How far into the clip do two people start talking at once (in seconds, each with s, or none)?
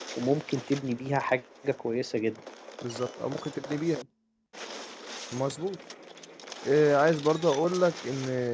none